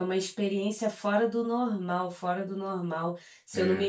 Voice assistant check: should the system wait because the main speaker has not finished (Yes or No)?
Yes